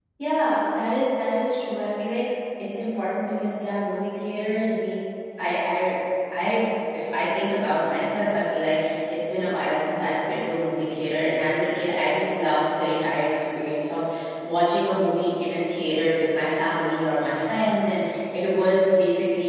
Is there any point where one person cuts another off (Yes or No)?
No